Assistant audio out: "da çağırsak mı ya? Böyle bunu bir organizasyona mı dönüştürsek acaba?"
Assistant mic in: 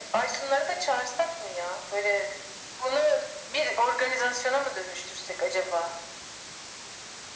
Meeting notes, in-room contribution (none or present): none